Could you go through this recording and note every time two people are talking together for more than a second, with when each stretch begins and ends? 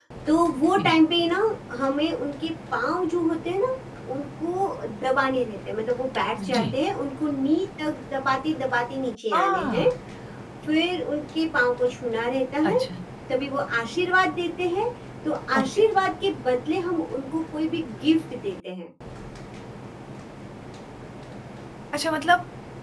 none

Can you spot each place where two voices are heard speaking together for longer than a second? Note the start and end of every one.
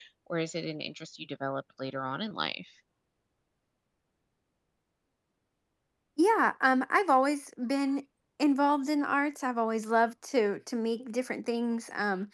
none

